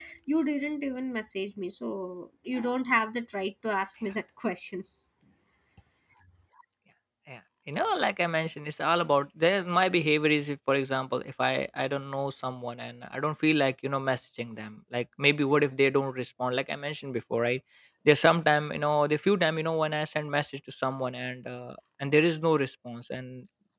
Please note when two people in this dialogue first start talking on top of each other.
none

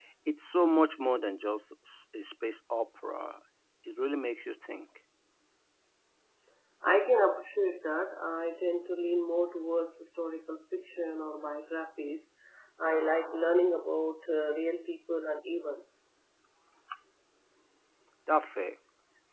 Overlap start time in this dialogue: none

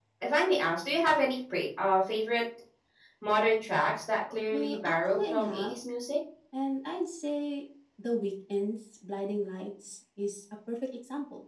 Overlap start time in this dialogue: 5 s

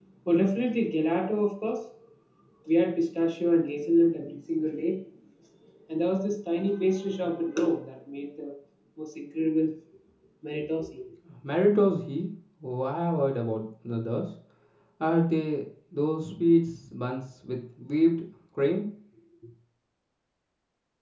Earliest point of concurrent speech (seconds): none

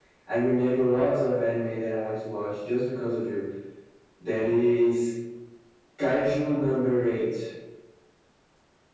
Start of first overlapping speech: none

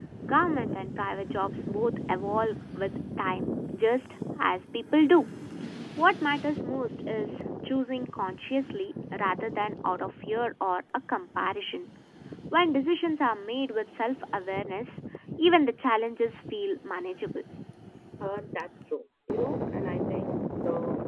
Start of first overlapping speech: none

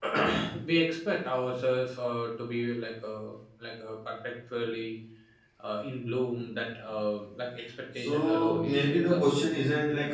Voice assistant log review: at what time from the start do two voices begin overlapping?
8 s

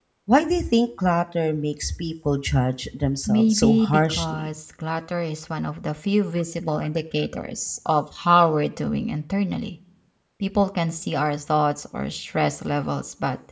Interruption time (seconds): 3 s

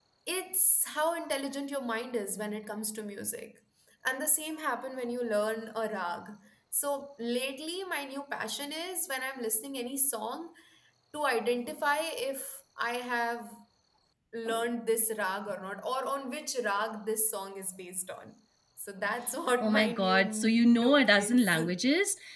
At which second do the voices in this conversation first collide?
20 s

